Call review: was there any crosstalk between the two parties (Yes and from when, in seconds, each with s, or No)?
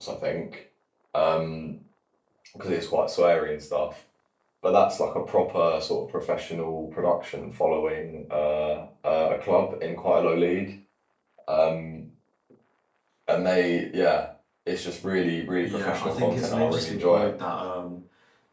Yes, from 15.6 s